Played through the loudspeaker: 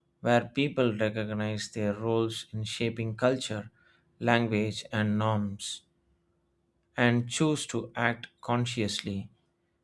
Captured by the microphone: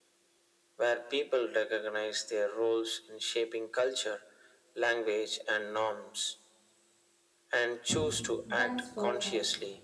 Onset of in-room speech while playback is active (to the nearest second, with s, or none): 8 s